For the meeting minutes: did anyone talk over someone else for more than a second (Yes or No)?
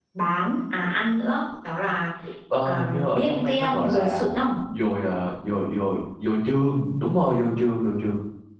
Yes